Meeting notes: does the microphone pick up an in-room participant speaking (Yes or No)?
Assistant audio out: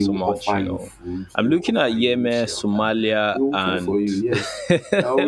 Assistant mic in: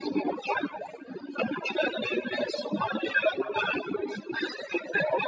No